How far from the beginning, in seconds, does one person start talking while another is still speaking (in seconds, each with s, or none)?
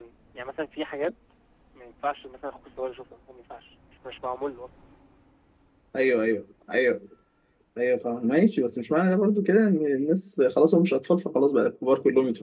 none